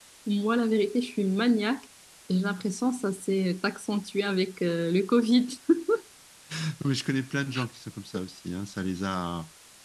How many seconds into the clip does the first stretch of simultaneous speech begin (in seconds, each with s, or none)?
none